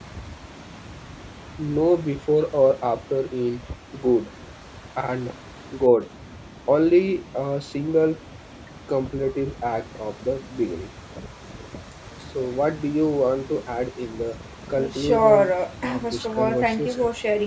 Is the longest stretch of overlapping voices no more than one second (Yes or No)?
No